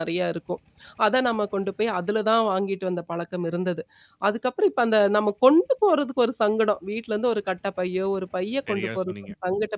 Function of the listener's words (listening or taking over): listening